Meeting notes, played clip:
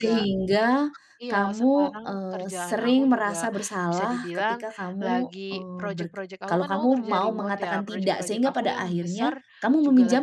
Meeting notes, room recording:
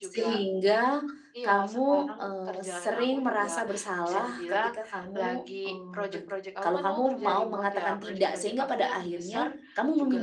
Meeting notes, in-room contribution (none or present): none